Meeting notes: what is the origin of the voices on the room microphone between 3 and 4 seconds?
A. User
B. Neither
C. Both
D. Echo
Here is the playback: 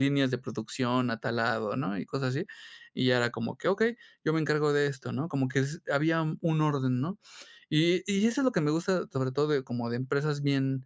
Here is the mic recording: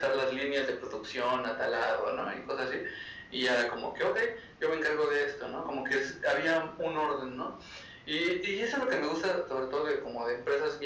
D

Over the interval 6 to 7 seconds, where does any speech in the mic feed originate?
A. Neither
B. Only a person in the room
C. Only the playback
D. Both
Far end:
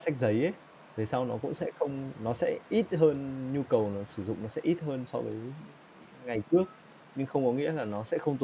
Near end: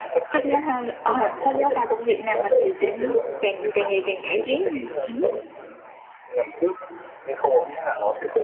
C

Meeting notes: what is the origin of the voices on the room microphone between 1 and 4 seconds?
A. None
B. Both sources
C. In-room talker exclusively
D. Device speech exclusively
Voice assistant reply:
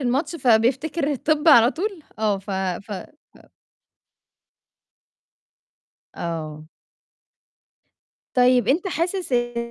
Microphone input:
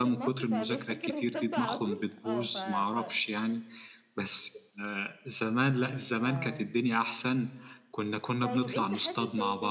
B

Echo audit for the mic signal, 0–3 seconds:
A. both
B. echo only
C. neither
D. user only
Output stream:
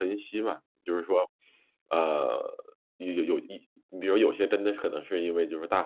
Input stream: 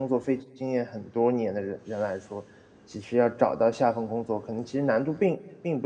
D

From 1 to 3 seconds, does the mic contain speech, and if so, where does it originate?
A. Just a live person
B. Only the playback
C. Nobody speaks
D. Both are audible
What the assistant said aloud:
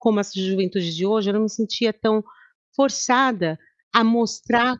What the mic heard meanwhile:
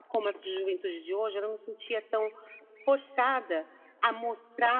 B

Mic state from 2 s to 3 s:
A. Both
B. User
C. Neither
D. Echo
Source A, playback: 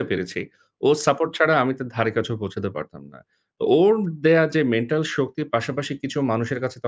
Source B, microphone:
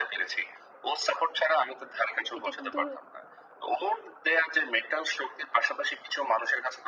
A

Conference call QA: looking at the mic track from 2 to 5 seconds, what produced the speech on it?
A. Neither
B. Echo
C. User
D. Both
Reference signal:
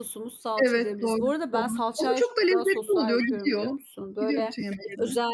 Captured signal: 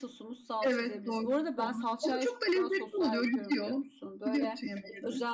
B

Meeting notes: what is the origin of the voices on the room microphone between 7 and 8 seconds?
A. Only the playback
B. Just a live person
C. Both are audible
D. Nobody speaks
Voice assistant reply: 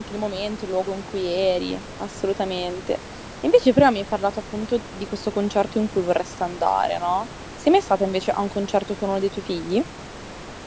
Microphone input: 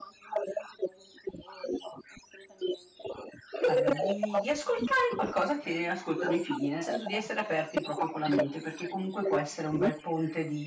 C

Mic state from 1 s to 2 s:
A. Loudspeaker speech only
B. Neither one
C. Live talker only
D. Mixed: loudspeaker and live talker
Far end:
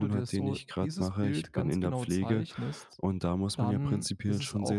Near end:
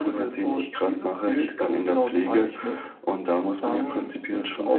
A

